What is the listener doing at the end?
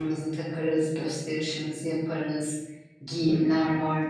listening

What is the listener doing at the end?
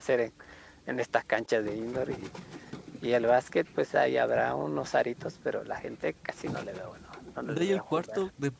taking over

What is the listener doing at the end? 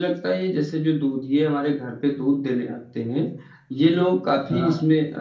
listening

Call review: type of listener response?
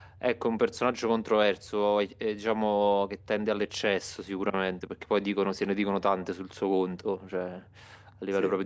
listening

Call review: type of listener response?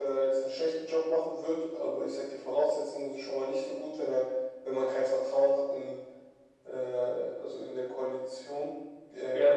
taking over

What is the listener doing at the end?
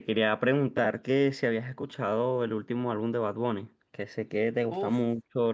listening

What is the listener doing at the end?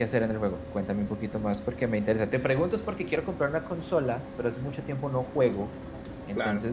listening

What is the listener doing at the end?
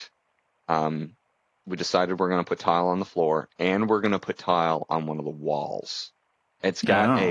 listening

